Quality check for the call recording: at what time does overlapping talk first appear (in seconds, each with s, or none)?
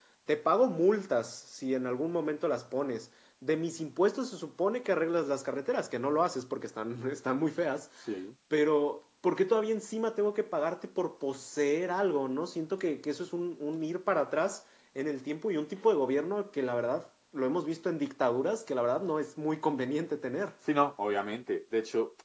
none